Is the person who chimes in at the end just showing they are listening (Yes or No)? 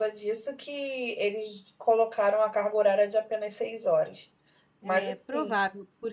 No